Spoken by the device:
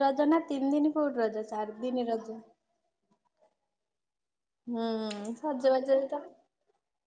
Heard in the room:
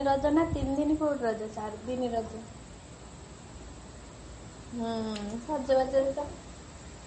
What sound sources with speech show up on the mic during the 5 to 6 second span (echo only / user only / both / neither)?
echo only